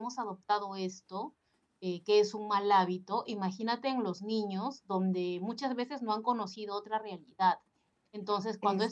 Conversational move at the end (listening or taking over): listening